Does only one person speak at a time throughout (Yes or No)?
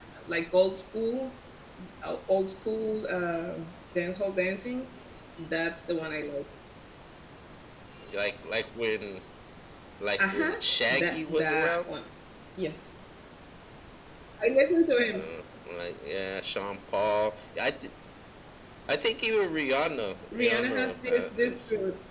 No